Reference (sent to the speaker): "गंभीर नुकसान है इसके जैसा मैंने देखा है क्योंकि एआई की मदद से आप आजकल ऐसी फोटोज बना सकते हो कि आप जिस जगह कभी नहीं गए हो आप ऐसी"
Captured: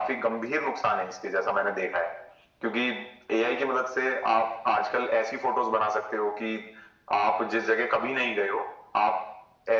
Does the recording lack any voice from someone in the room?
Yes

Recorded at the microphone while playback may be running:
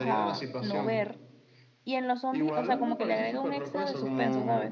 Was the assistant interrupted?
Yes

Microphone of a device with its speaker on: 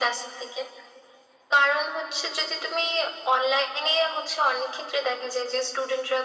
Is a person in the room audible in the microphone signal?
No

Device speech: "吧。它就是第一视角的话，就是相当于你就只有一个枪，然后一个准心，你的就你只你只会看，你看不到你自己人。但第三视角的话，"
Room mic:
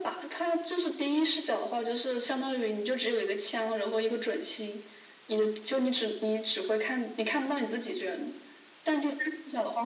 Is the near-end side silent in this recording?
Yes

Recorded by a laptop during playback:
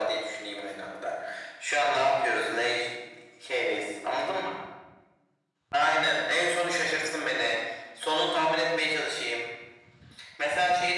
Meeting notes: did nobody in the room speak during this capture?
Yes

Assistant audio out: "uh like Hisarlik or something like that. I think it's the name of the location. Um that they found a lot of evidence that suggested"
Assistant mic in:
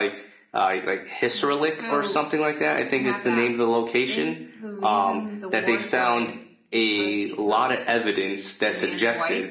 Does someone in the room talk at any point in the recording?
Yes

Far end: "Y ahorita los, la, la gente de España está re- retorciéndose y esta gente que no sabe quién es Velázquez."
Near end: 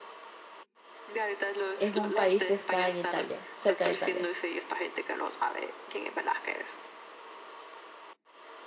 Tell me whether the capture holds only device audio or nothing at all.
No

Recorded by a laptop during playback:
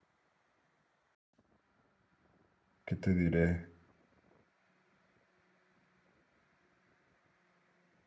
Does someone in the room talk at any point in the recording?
Yes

